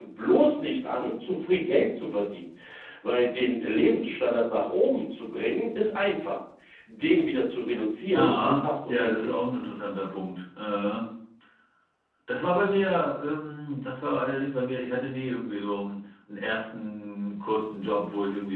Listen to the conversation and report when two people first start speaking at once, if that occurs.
8.1 s

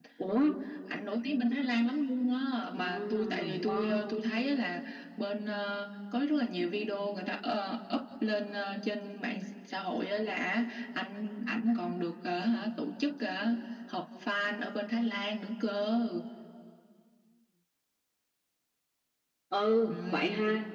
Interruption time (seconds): 2.9 s

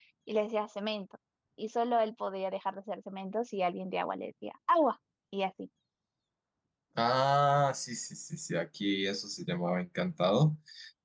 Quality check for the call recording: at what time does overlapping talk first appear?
none

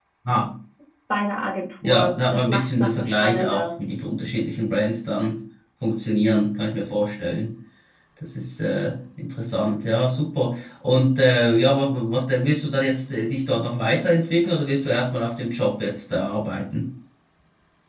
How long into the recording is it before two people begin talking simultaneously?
1.8 s

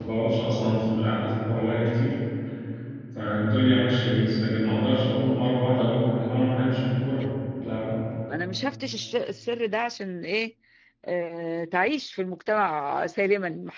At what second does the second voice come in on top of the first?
none

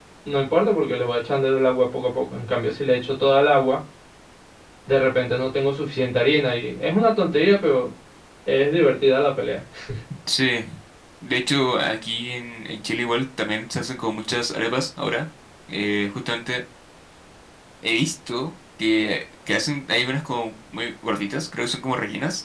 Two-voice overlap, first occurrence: none

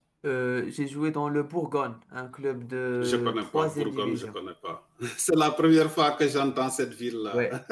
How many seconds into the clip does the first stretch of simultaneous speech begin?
3.0 s

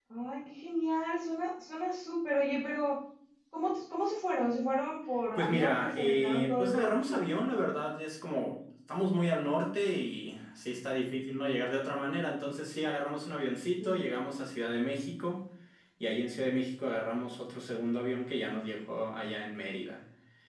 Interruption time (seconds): 5.3 s

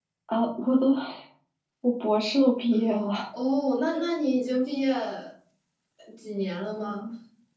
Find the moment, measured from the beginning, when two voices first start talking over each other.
none

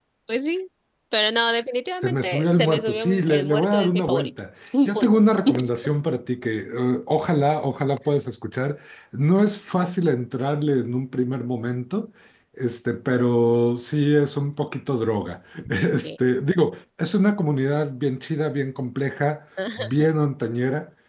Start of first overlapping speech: 2.0 s

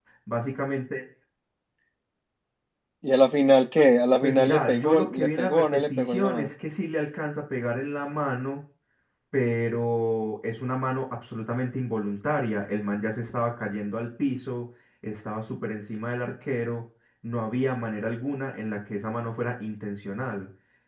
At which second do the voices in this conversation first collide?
4.2 s

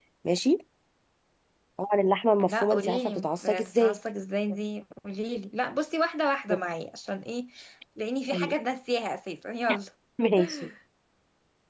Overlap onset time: 2.4 s

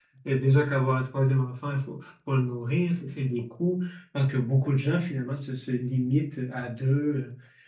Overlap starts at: none

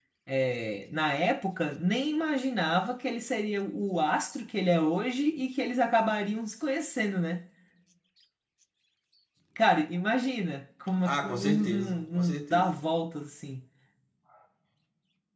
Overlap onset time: 11.0 s

